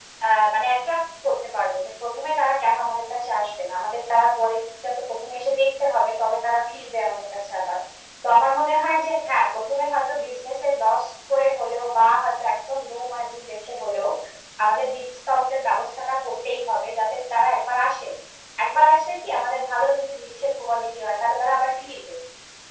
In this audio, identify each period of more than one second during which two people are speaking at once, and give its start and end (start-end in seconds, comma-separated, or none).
none